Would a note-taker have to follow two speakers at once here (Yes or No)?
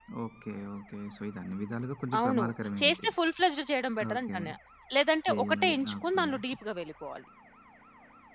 Yes